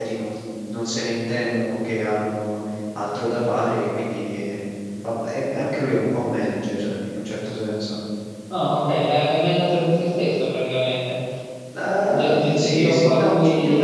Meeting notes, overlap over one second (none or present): present